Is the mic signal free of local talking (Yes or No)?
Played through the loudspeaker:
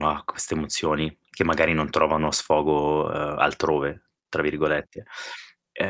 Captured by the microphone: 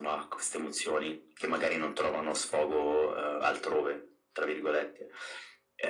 Yes